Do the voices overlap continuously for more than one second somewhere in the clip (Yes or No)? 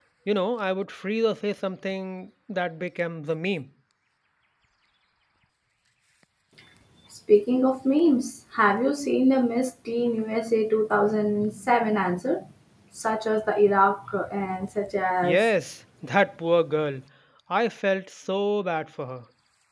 No